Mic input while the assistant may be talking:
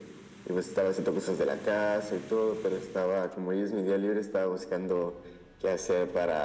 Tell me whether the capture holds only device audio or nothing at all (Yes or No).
Yes